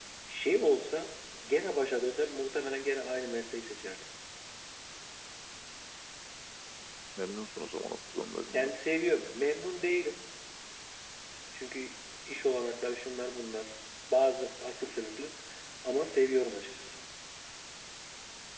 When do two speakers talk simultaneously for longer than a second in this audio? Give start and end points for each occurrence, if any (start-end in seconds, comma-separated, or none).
none